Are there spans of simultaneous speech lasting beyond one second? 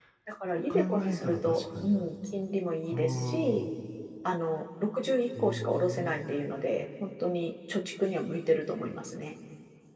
Yes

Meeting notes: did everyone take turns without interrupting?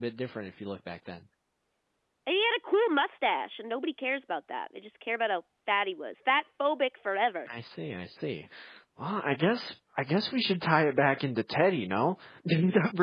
Yes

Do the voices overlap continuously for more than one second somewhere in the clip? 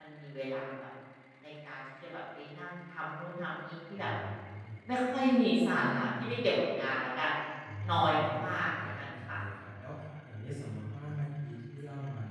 Yes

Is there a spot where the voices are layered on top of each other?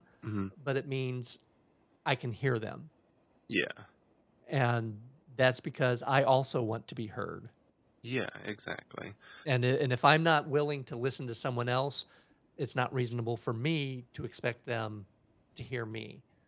No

